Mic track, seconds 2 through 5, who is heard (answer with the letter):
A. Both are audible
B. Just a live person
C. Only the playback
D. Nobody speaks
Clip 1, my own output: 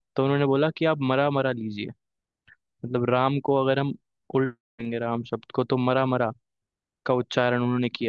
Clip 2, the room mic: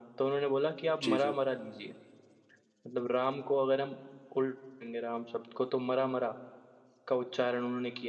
C